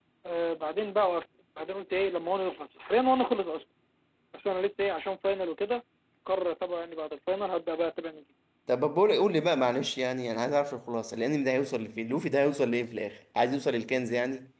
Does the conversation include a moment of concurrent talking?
No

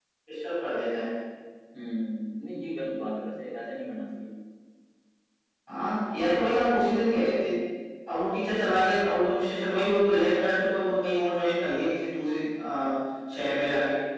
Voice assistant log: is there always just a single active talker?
Yes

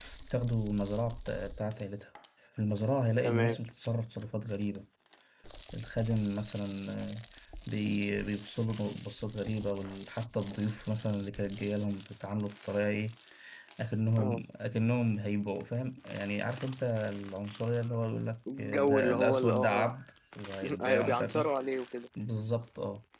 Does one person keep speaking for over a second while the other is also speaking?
Yes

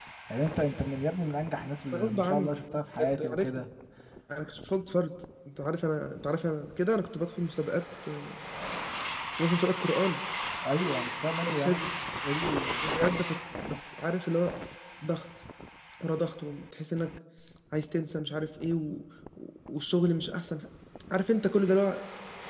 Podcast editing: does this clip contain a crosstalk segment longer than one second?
Yes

